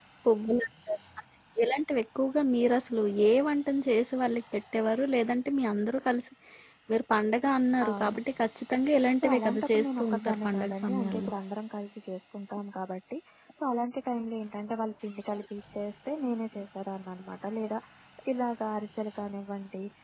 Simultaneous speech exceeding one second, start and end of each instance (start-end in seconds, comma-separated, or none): 9.2-11.3